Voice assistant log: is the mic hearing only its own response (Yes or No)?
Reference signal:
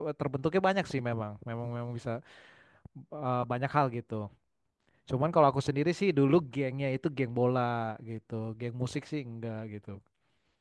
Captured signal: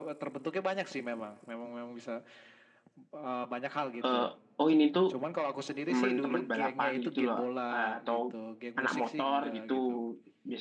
No